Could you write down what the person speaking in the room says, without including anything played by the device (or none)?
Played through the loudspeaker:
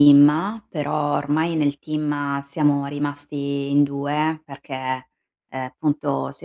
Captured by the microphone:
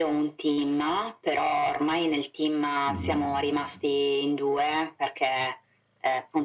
Mh-mh.